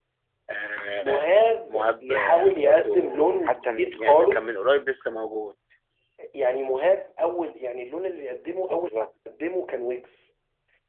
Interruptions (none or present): present